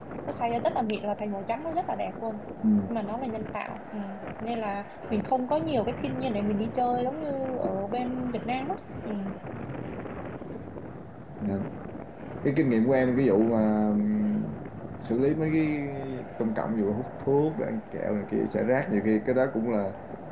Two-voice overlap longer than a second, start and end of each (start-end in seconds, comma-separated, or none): none